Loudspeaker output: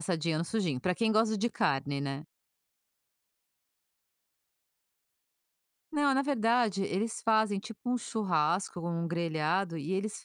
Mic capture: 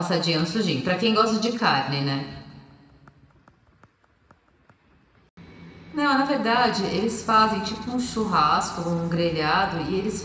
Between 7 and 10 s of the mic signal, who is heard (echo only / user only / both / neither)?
echo only